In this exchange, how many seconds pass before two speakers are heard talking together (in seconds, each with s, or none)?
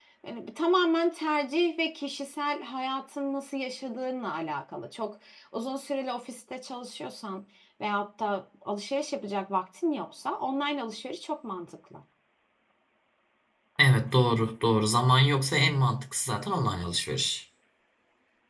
none